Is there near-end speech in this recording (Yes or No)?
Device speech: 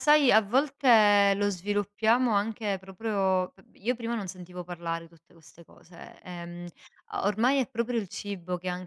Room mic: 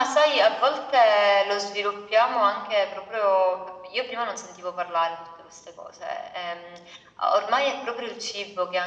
No